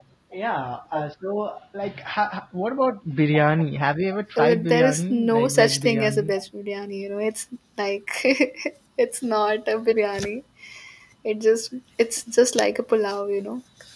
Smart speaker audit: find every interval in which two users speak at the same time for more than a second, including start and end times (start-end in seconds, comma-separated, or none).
4.4-6.3